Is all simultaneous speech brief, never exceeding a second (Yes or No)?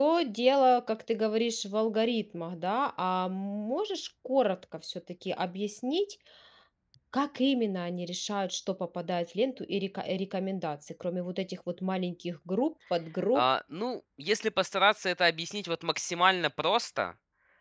Yes